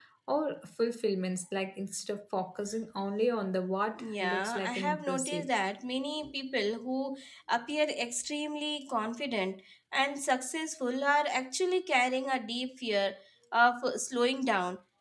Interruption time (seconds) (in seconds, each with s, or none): 4.0 s